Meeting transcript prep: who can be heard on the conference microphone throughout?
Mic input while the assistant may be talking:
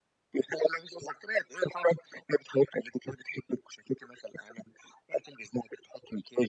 echo only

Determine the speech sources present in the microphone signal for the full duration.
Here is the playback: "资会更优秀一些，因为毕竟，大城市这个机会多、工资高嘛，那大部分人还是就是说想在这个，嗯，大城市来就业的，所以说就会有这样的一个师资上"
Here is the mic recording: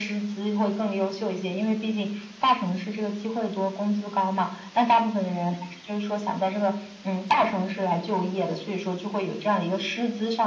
echo only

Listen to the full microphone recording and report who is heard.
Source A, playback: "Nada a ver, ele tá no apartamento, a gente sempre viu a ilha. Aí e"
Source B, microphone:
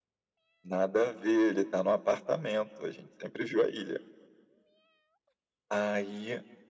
echo only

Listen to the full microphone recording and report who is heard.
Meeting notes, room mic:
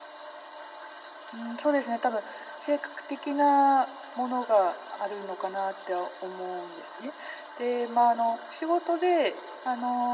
echo only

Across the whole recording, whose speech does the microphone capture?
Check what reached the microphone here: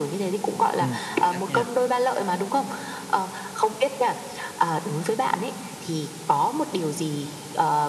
both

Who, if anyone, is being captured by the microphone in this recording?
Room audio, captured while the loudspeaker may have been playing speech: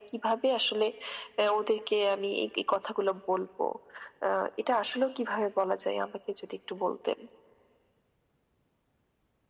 echo only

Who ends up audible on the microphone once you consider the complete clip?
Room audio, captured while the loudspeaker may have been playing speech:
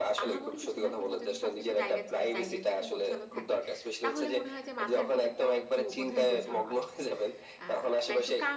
both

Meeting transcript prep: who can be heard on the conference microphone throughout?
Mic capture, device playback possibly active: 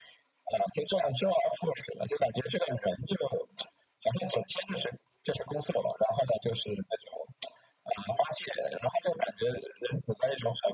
echo only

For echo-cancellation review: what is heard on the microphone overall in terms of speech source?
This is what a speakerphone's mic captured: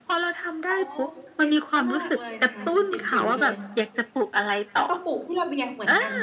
both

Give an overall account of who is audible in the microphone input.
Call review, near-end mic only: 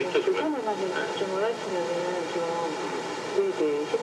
echo only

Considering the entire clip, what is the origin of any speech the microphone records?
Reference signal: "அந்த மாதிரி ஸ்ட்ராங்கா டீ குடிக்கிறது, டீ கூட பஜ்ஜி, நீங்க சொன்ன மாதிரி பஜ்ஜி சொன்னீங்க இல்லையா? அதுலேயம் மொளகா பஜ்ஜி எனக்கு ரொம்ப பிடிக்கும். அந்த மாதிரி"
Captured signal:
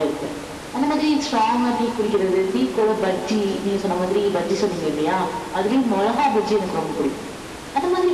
echo only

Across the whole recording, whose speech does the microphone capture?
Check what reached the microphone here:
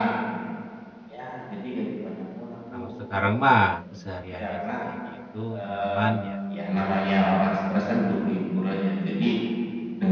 both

